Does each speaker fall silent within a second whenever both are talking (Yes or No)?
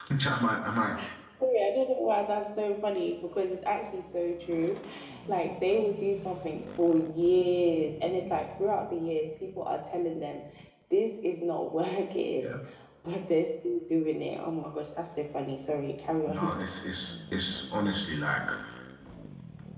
Yes